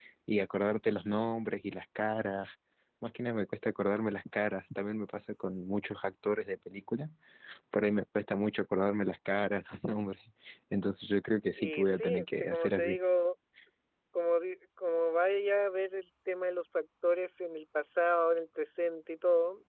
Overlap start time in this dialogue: 11.6 s

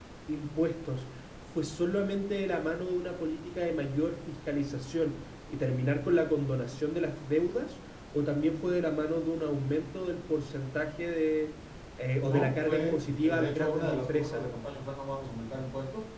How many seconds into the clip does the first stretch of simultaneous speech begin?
12.2 s

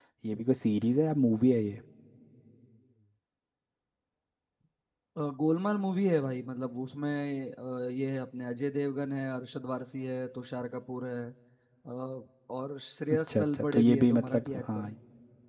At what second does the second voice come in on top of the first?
13.3 s

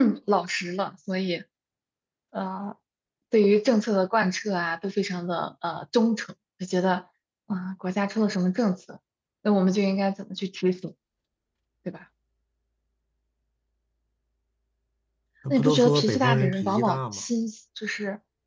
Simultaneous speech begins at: 15.5 s

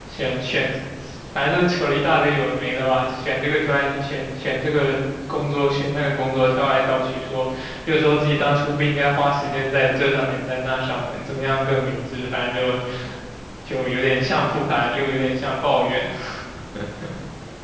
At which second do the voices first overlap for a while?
none

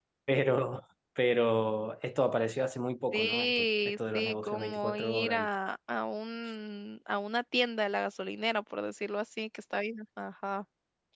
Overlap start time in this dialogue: 3.1 s

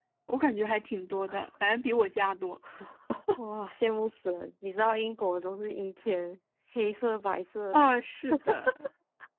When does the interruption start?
none

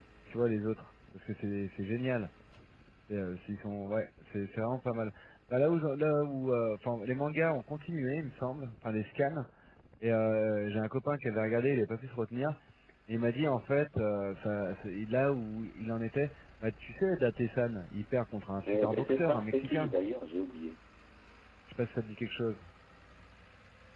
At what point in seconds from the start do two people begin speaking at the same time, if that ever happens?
18.6 s

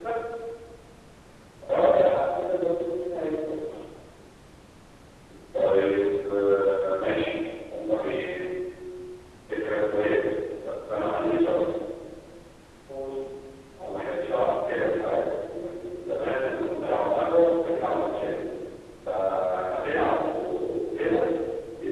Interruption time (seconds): none

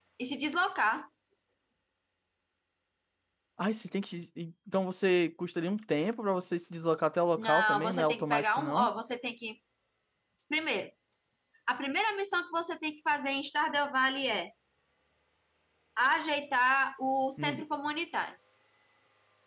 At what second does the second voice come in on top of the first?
7.4 s

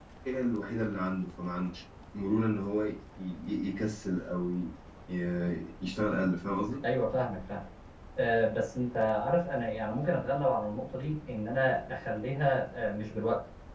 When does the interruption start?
none

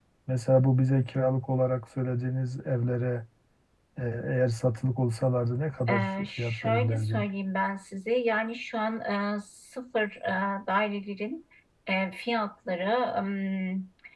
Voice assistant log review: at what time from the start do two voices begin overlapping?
5.9 s

